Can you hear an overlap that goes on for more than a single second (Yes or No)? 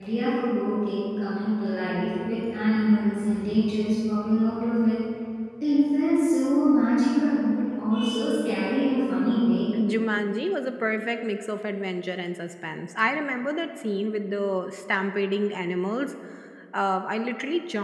No